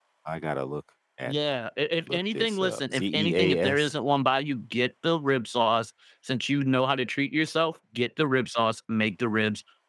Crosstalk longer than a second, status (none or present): present